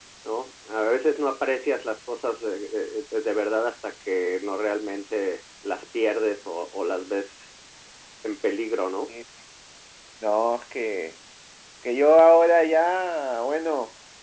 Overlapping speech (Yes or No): No